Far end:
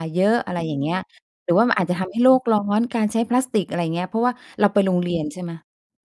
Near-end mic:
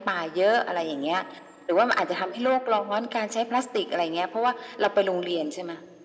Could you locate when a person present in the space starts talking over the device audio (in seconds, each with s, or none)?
none